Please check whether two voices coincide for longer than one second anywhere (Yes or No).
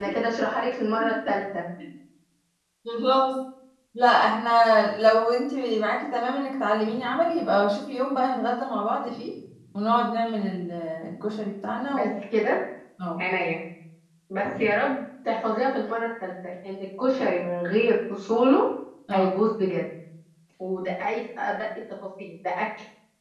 No